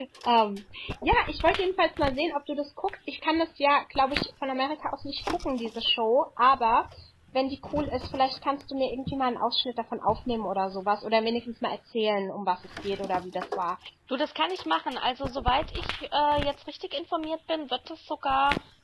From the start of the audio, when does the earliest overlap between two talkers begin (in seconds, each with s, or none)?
none